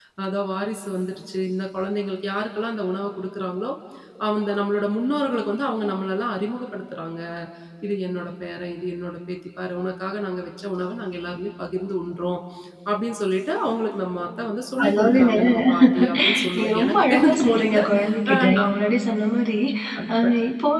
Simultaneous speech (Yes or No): Yes